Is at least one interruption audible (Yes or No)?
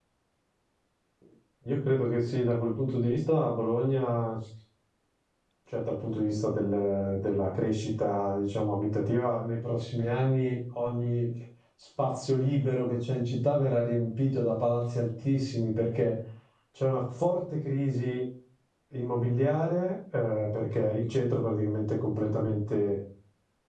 No